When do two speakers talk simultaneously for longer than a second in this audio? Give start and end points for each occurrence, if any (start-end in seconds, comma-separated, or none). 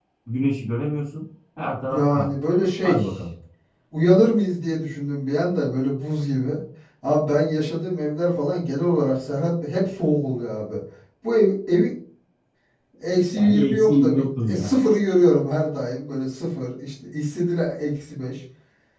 13.3-14.7